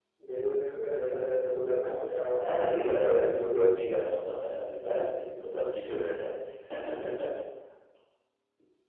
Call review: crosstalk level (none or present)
present